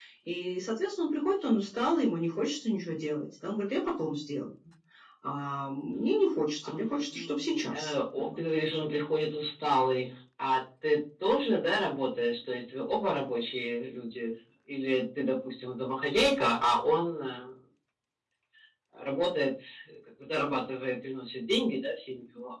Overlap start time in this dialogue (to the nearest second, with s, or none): 7 s